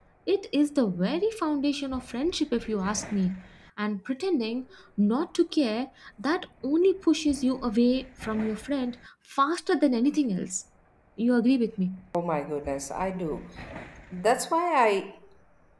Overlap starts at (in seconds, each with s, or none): none